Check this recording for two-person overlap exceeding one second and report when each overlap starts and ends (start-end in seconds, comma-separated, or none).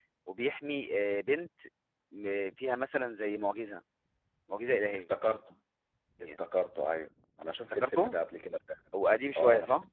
none